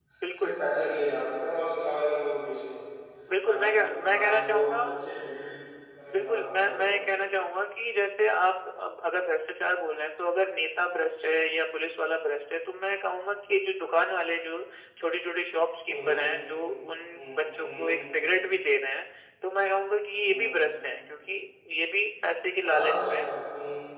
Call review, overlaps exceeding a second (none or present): present